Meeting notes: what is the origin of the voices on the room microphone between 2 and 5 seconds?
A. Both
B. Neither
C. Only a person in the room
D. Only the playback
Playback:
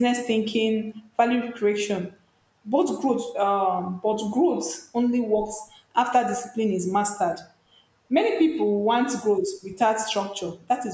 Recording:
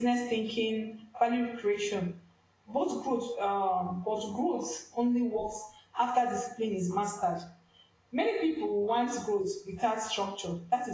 D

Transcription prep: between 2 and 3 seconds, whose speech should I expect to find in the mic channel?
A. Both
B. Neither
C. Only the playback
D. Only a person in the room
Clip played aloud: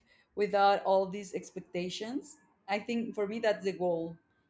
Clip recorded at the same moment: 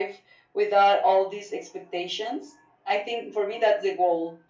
C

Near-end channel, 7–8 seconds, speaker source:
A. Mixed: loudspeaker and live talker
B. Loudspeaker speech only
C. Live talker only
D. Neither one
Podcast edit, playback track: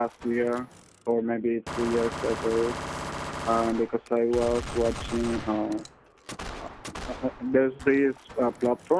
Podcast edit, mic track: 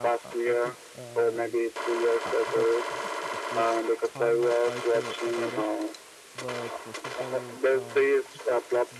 A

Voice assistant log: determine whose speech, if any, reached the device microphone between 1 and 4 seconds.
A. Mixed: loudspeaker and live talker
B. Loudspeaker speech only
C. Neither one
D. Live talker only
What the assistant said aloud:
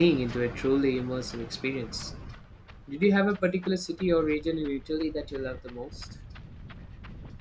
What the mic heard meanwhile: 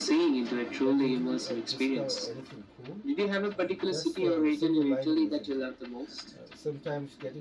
A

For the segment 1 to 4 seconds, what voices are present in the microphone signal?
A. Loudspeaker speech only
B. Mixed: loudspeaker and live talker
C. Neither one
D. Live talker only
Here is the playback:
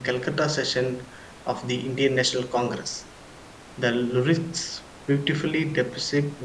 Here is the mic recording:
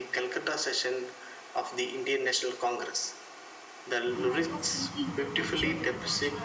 A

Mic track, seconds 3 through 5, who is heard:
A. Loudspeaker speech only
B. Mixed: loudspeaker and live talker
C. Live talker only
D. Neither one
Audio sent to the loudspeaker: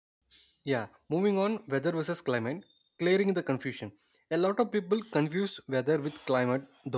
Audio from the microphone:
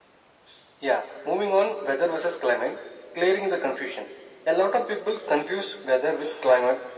A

